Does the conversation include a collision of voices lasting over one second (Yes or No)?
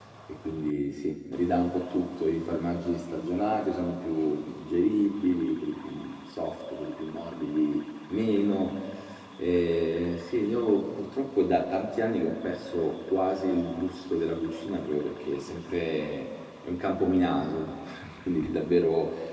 No